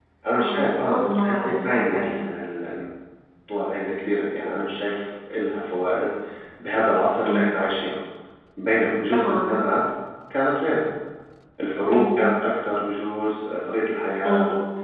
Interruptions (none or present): present